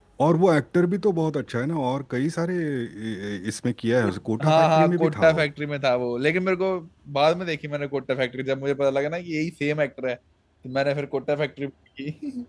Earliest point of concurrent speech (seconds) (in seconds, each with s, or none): 4.0 s